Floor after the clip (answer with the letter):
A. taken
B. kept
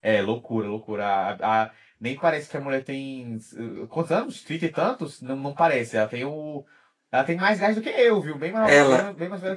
A